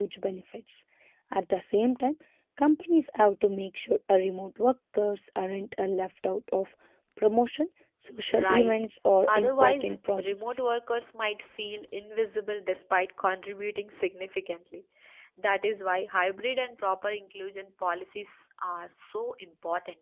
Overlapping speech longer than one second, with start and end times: 9.3-10.6

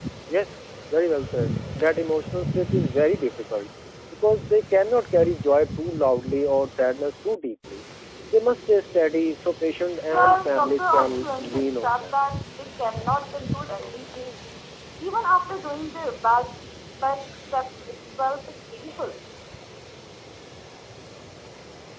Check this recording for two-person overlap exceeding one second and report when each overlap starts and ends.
10.1-12.1

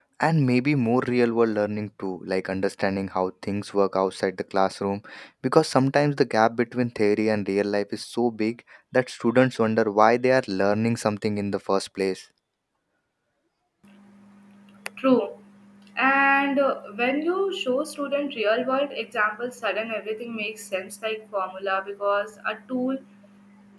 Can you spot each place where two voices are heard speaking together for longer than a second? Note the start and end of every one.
none

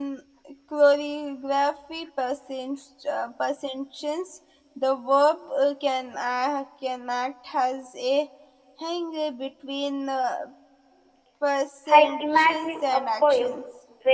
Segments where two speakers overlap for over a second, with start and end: 11.9-13.5

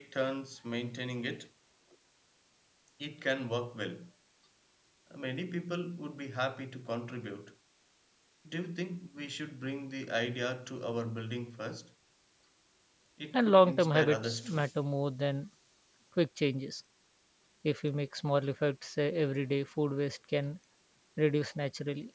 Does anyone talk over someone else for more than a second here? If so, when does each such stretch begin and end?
13.3-14.6

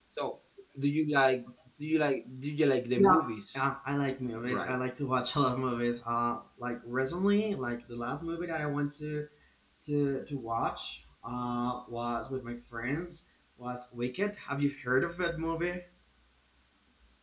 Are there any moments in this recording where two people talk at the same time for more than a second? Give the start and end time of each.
none

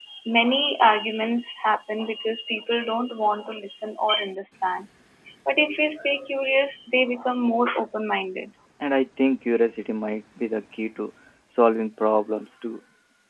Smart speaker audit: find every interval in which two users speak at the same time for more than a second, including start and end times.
none

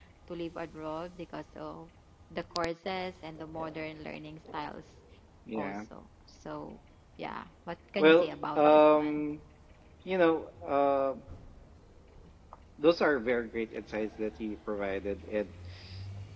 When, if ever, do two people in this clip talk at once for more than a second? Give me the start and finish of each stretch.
8.0-9.2

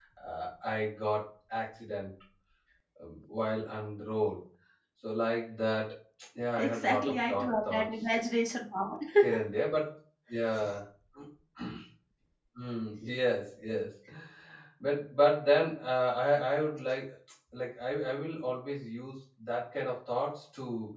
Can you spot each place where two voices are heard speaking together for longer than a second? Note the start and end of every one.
6.6-7.9

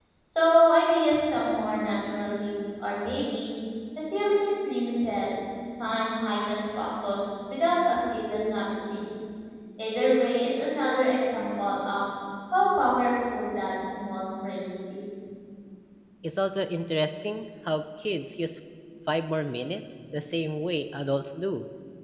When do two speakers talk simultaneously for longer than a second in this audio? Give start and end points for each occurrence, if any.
none

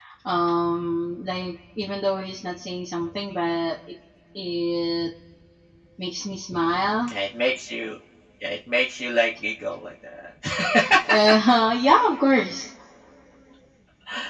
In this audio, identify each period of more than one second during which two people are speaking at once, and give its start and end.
none

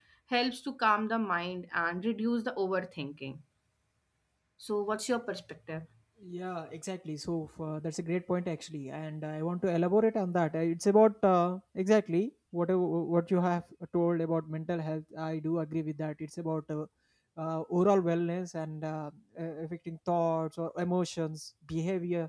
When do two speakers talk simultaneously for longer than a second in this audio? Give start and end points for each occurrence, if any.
none

